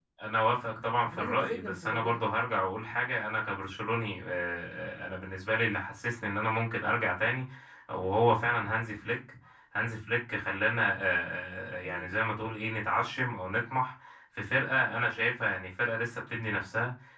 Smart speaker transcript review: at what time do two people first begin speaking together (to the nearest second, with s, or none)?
1 s